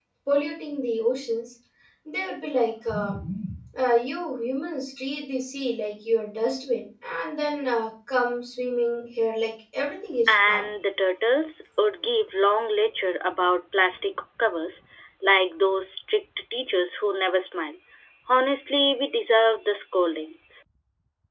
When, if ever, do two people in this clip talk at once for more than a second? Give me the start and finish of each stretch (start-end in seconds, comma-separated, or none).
none